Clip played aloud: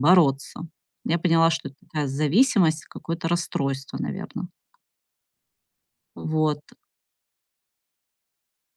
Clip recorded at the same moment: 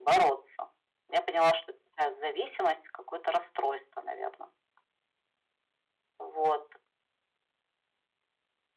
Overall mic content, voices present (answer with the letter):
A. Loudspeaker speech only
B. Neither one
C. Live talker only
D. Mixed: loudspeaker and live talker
A